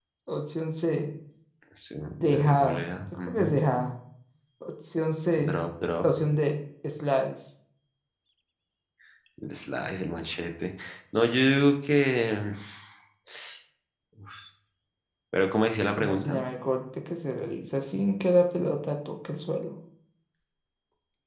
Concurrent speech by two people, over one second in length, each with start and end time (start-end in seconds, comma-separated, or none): 2.3-3.6